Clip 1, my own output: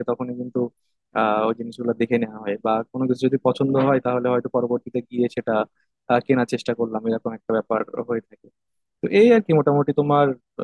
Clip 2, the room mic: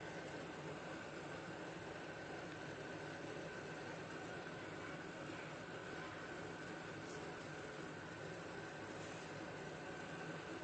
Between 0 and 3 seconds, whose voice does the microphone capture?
neither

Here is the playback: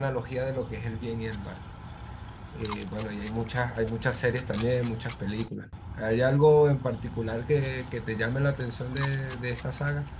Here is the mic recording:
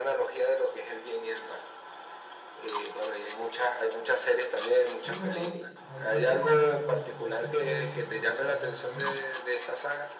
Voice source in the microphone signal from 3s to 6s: both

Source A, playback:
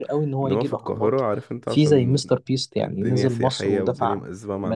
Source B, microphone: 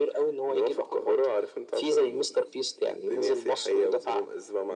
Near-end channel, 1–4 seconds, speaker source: echo only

